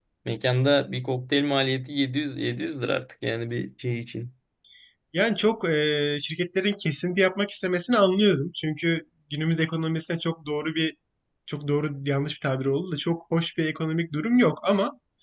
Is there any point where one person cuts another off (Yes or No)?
No